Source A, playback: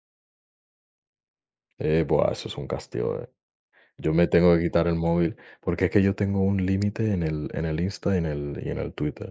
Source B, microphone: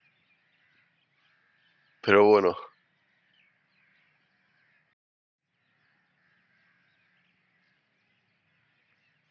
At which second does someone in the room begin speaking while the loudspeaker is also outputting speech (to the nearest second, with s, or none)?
2 s